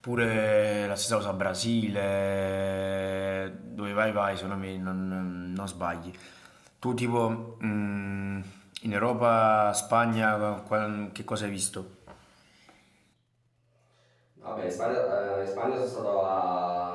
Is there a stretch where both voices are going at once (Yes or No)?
No